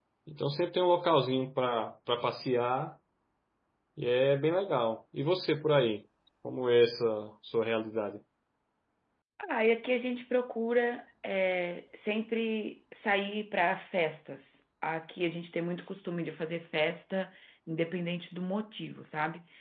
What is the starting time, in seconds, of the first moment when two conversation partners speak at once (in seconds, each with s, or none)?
none